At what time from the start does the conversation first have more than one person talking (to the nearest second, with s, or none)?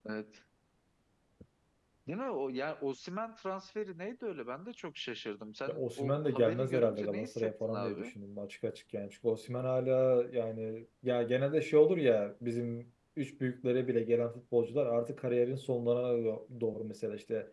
6 s